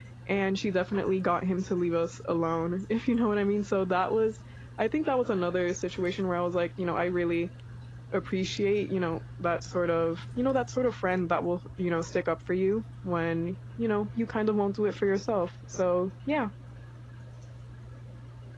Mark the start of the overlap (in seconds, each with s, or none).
none